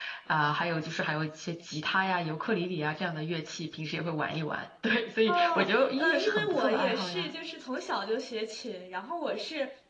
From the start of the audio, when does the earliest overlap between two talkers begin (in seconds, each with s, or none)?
5.3 s